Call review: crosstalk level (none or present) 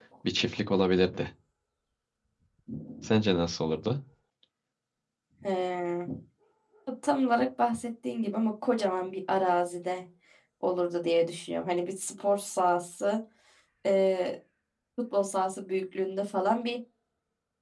none